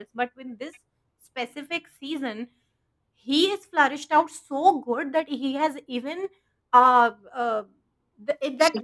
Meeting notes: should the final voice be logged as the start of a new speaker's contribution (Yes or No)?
No